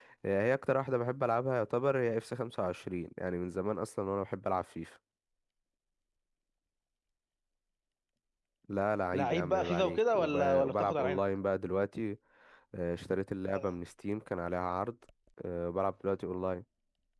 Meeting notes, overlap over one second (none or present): present